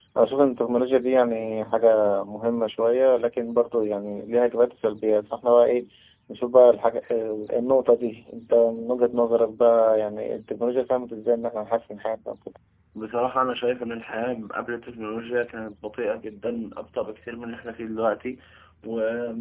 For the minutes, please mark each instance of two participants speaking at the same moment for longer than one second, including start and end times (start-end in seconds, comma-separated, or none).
none